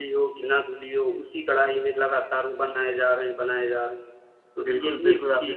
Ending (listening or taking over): taking over